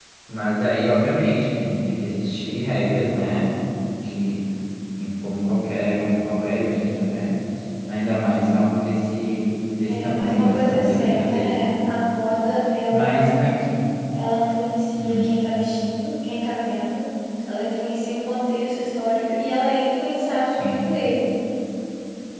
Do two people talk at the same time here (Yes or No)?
Yes